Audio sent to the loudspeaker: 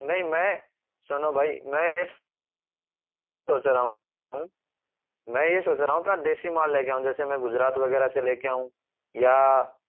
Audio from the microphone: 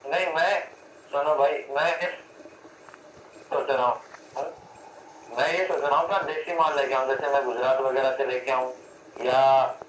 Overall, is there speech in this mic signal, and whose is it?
echo only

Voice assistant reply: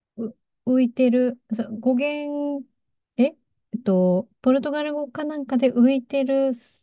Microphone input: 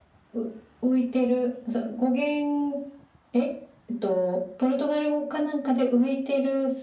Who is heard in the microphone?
echo only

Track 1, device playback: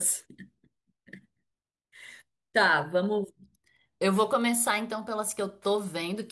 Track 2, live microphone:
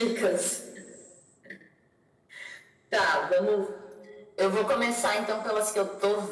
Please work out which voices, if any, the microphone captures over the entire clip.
echo only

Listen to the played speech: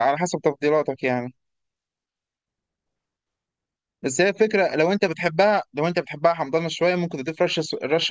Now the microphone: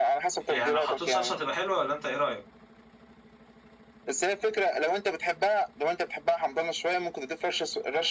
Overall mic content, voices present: both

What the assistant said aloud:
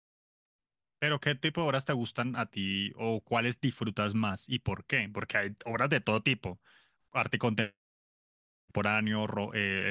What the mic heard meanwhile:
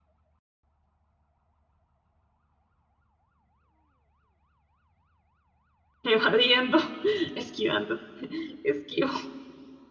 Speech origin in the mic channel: user only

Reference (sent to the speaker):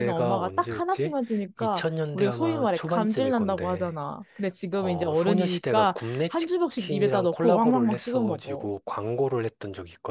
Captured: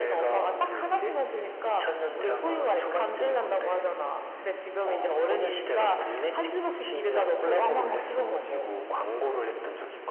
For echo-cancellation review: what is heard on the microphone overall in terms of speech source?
echo only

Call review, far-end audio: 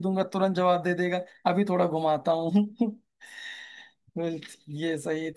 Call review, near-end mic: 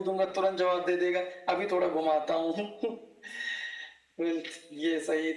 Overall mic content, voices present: echo only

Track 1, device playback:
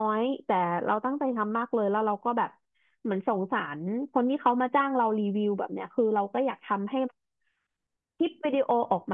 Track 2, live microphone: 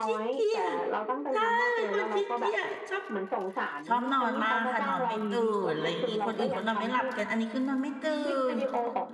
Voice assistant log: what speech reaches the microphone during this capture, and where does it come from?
both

